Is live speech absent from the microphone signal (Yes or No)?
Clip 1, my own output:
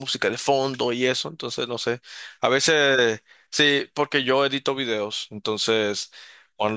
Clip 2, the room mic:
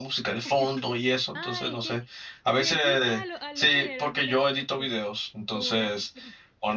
No